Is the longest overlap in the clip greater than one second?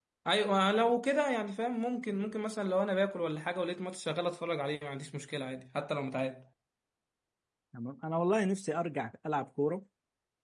No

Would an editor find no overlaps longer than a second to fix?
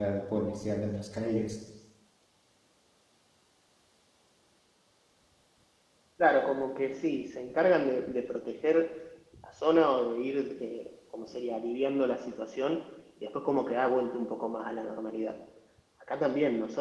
Yes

